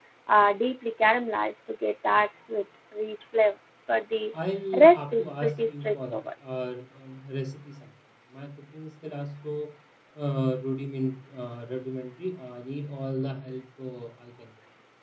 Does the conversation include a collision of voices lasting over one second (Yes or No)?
Yes